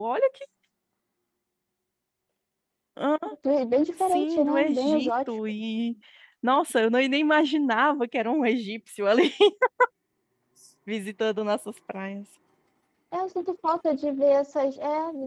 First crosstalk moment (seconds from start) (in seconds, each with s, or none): 4.0 s